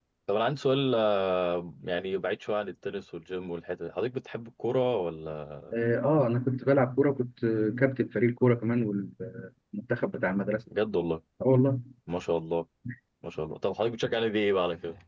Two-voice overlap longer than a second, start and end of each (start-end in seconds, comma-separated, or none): none